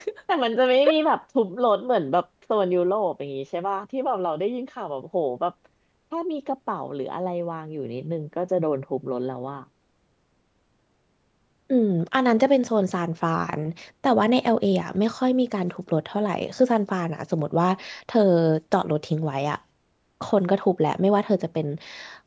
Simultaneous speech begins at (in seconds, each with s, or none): none